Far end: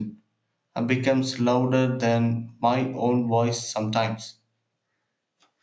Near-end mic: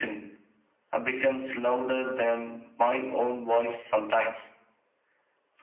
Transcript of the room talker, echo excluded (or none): none